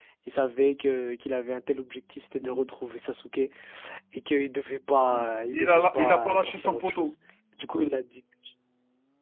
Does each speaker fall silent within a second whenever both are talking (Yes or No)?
No